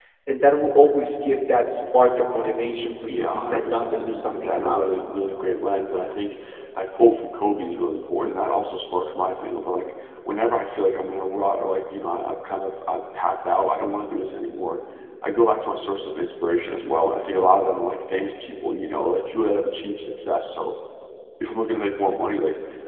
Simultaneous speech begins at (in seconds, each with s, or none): 3.1 s